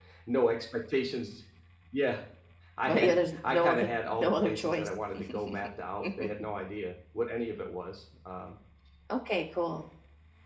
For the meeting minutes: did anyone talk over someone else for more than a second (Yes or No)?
Yes